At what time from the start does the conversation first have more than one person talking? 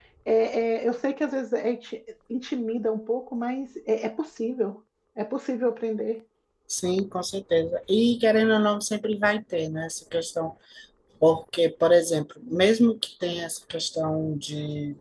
none

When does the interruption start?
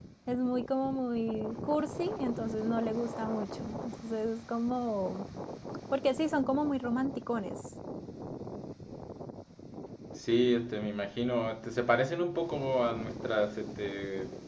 none

